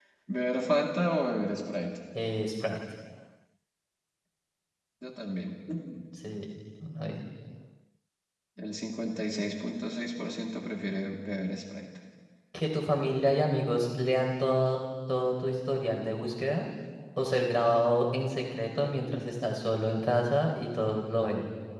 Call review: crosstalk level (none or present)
none